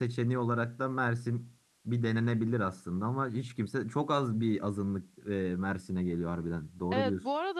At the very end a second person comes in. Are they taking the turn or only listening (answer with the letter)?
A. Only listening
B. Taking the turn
B